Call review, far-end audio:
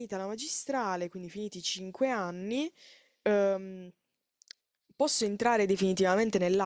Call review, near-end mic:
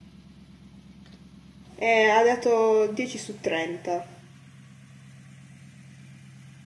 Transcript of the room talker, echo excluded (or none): e ha dato 10 su 30.